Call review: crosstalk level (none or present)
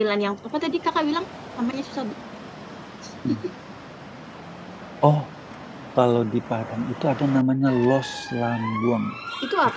none